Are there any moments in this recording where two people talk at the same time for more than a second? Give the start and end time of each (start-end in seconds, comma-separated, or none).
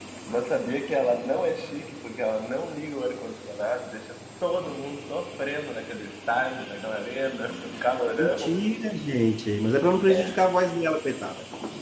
none